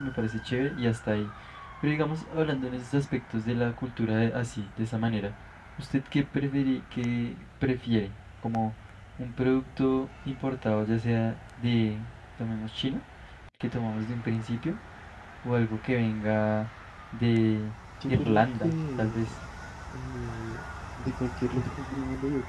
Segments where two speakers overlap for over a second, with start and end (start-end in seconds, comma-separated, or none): 18.1-19.3